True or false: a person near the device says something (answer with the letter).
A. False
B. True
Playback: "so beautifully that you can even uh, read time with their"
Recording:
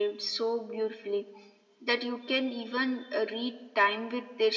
A